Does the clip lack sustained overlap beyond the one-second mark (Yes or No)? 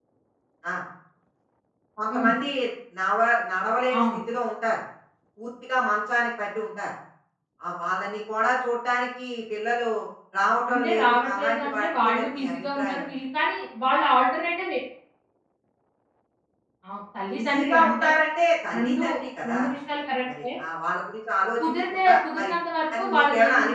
No